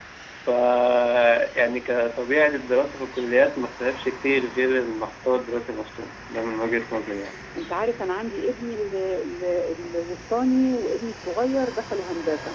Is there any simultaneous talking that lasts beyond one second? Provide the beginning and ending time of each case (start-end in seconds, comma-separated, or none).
none